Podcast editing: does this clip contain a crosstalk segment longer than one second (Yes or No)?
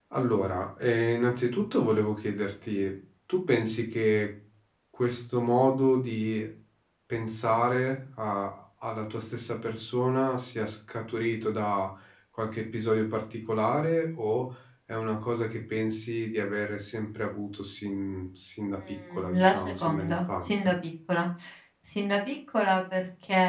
Yes